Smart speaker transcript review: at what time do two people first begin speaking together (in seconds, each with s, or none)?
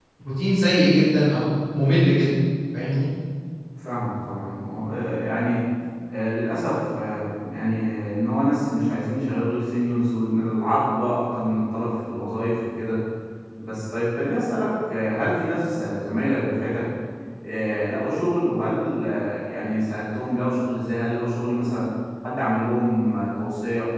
none